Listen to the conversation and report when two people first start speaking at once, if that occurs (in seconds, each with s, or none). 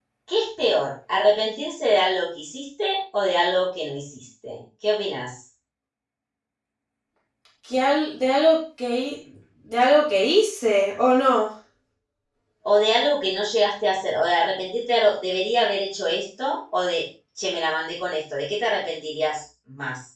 none